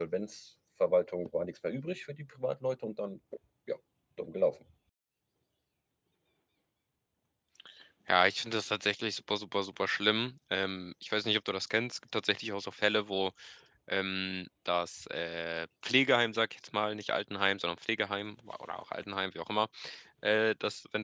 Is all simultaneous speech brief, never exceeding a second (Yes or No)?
Yes